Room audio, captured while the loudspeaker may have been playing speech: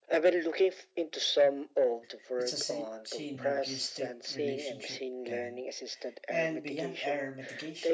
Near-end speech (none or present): present